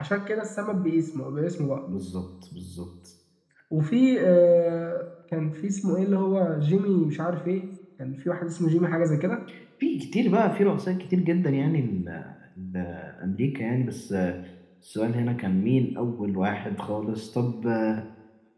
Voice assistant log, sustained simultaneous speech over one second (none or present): none